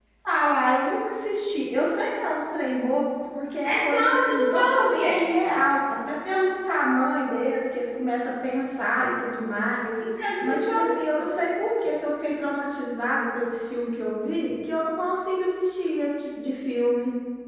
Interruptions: present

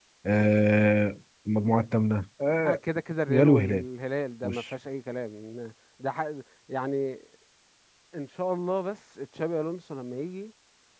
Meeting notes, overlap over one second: none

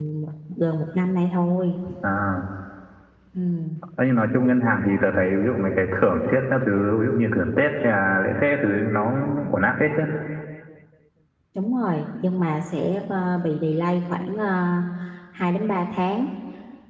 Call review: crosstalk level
none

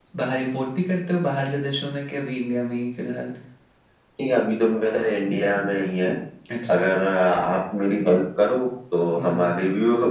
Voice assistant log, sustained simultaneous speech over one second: none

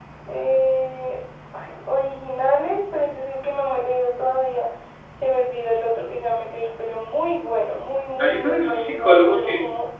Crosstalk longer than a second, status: present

